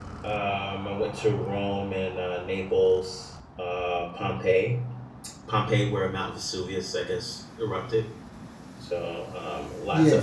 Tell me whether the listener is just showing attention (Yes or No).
Yes